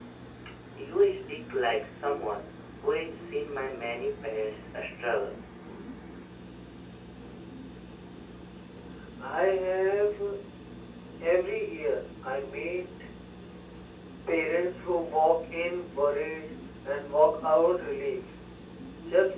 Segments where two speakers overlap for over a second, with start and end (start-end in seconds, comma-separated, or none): none